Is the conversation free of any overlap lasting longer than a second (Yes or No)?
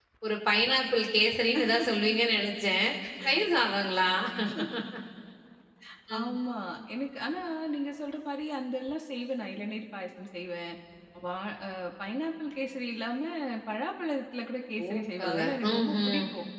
No